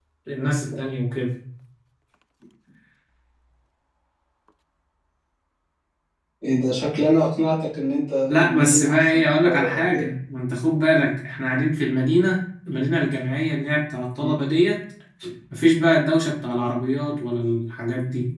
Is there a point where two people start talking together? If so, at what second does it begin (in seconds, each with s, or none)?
8.3 s